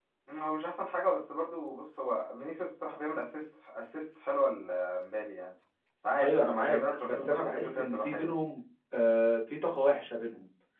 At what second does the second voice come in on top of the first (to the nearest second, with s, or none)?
6 s